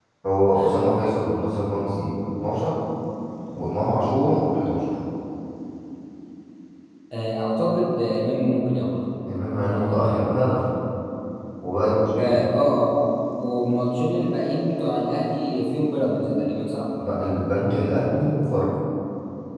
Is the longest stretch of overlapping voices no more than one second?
Yes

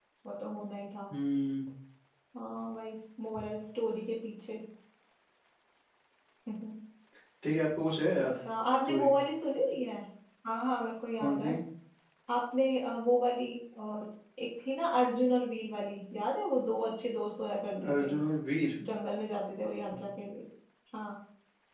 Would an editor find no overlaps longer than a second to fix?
Yes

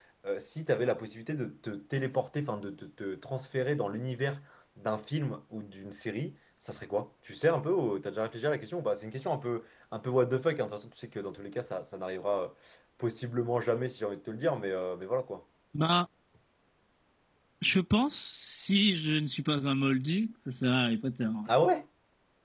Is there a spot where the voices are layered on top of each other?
No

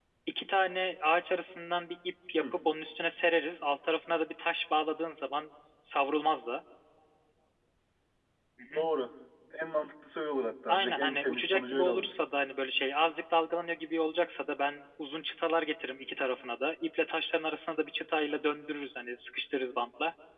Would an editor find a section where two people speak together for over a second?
Yes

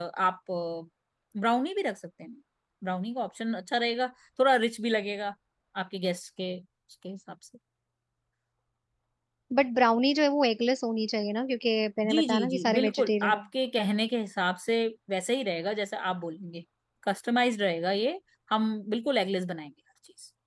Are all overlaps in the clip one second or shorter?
No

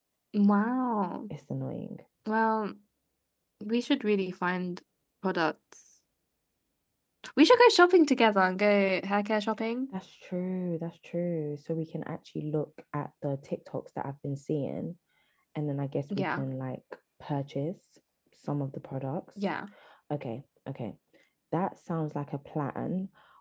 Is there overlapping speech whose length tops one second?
No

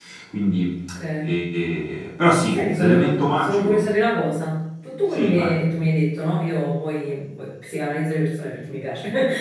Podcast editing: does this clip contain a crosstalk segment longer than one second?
Yes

